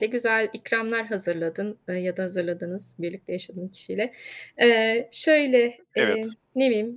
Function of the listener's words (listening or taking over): listening